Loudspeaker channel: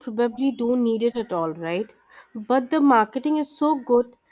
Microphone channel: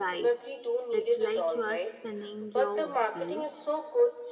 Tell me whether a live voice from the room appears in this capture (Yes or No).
Yes